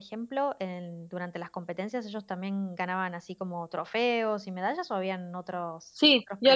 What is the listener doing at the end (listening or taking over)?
taking over